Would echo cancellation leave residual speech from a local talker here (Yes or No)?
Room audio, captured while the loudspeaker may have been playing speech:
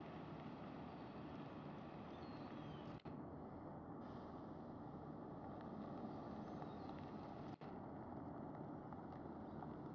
No